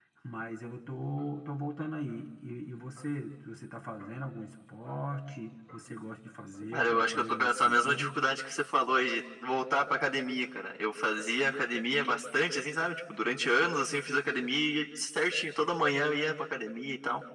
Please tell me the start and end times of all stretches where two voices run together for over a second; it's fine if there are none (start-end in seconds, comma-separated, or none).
6.7-8.1